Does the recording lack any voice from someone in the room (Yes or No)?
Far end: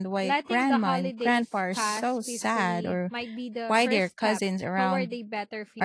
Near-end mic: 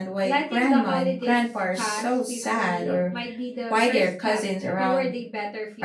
Yes